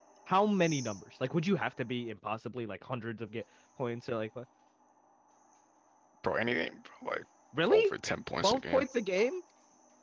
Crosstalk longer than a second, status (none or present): none